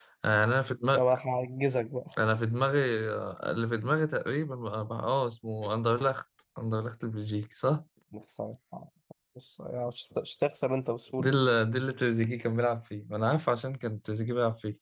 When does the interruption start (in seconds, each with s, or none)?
none